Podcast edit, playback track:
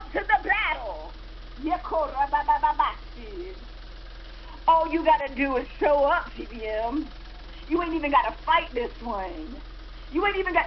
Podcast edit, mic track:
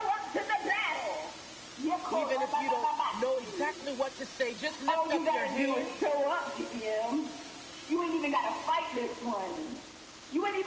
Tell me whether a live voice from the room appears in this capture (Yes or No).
Yes